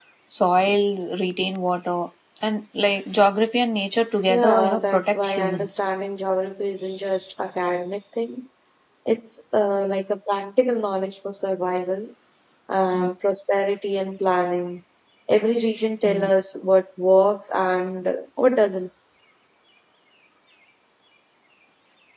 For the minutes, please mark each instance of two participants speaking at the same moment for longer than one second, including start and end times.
4.3-5.8

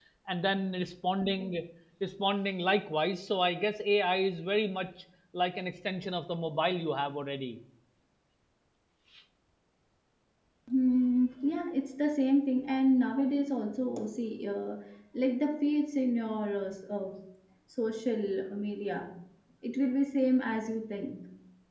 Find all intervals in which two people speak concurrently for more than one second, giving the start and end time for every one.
none

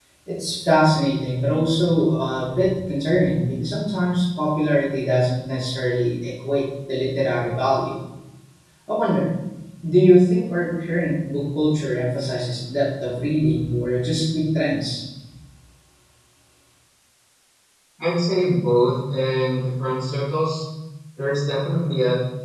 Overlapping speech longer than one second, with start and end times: none

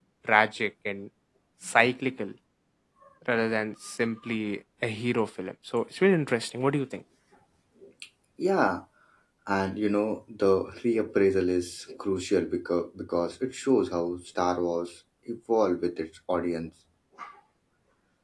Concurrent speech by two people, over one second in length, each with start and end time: none

